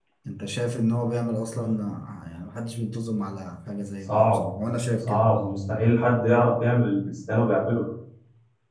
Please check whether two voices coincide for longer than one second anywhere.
No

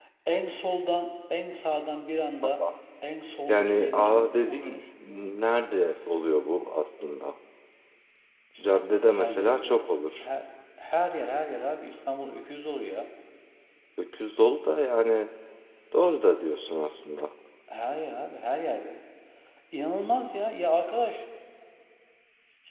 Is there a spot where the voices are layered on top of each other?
Yes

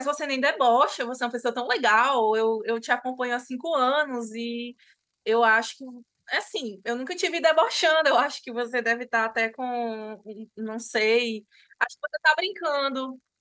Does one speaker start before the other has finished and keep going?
No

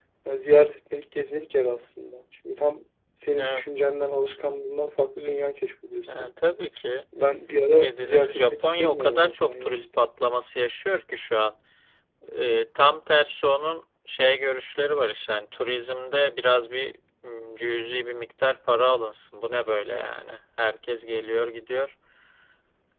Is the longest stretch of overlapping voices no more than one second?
No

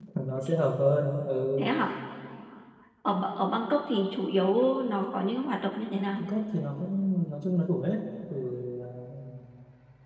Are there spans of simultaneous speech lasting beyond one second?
No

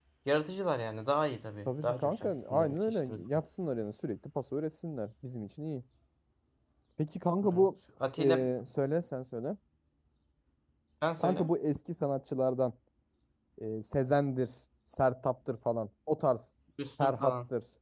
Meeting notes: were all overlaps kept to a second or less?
No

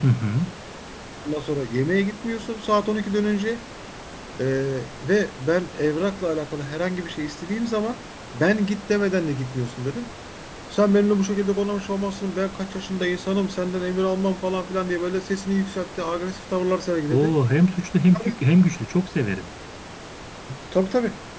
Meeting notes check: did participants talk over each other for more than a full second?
No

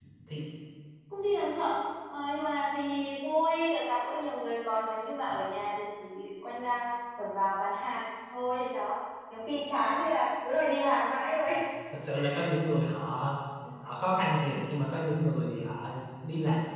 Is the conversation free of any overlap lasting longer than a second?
Yes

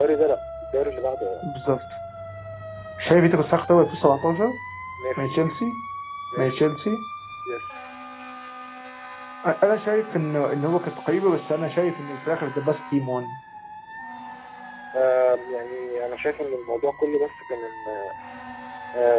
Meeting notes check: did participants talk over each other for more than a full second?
No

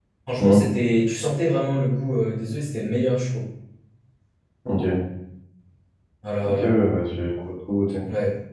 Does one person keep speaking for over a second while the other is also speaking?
No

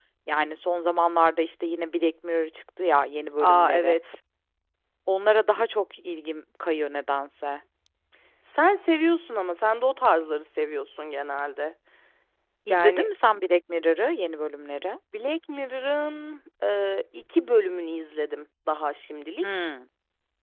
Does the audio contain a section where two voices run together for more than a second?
No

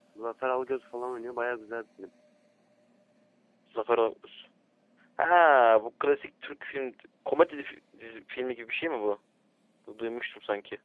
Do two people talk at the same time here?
No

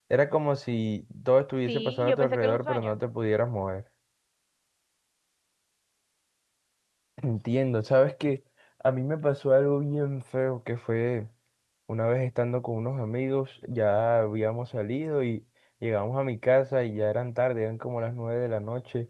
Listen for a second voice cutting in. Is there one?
Yes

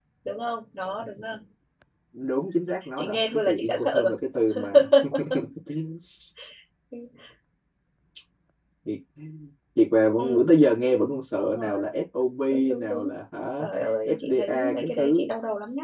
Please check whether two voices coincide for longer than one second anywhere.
Yes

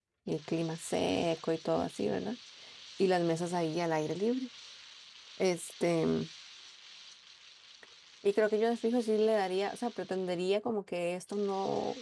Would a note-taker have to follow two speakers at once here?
No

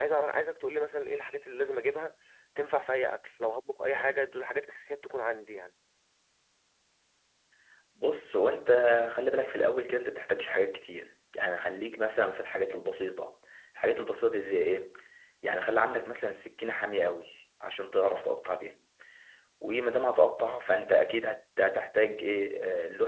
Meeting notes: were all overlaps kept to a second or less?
Yes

